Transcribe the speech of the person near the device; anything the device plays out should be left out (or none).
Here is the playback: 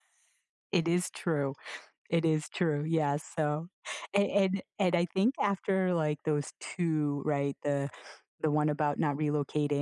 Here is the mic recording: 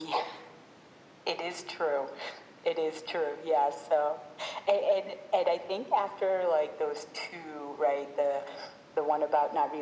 none